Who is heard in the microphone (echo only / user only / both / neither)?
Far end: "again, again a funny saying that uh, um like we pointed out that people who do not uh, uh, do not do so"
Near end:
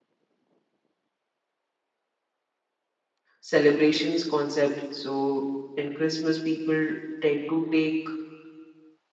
user only